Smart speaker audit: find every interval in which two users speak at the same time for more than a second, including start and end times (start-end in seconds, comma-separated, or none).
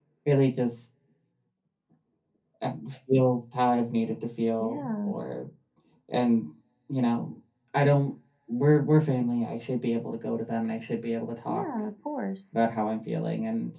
none